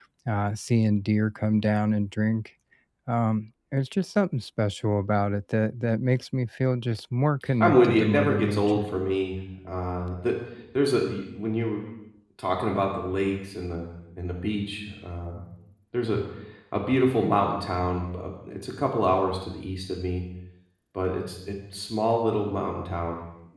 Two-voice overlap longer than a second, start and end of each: 7.6-8.9

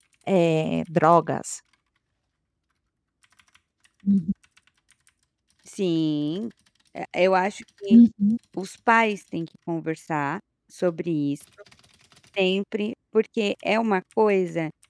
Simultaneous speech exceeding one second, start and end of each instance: none

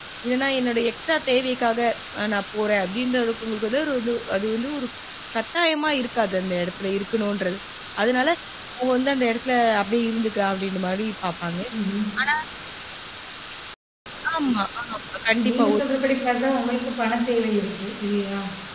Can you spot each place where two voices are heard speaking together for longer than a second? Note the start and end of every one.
none

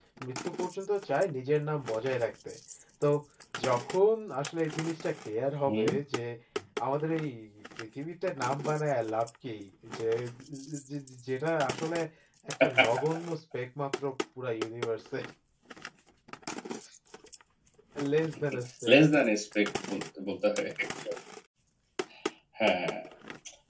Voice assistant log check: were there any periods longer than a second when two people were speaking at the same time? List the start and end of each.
none

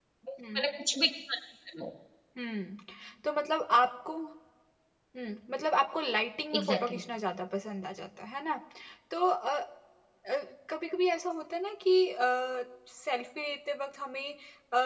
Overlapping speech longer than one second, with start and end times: none

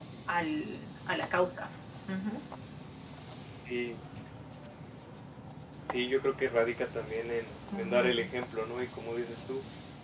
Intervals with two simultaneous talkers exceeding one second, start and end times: none

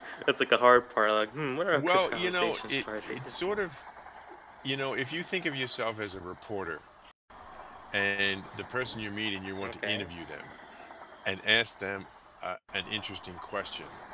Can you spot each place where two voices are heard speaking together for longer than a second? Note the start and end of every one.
1.7-3.5

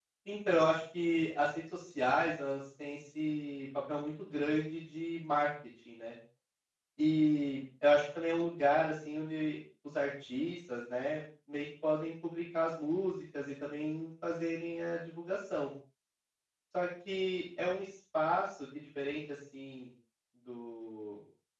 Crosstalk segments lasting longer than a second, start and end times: none

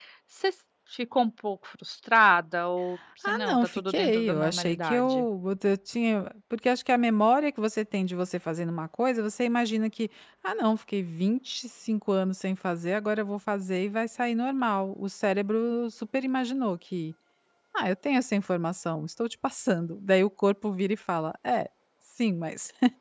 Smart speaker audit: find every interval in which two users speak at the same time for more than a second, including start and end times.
3.3-5.2

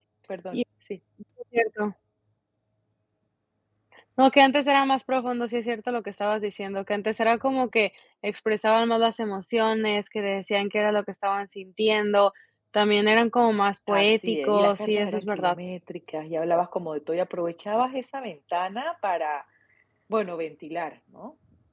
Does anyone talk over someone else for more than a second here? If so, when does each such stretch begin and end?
13.9-15.6

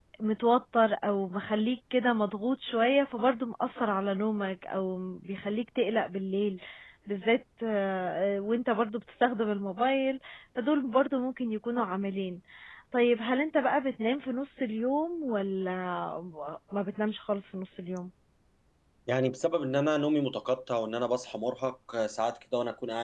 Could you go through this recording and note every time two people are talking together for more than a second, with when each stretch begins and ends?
none

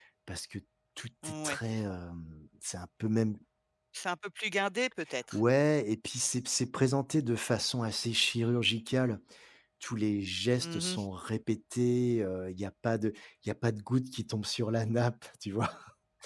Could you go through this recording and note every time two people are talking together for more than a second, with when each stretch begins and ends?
none

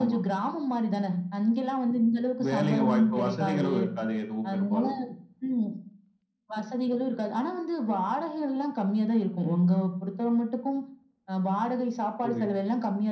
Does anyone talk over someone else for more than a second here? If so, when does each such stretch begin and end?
2.4-3.7

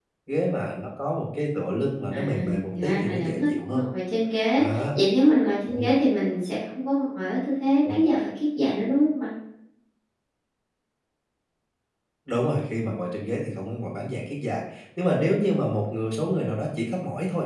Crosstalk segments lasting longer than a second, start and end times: 2.1-3.8

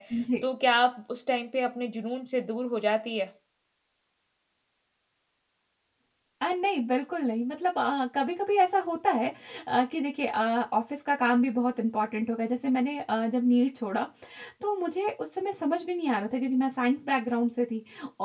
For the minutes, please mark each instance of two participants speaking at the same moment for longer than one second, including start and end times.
none

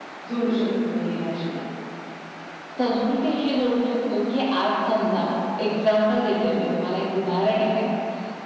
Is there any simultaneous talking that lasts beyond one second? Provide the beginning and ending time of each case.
none

